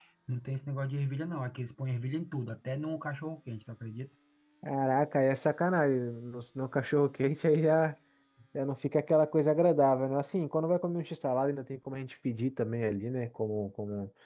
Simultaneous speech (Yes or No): No